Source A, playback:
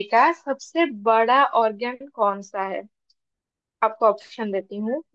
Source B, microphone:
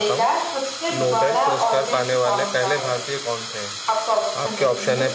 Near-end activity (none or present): present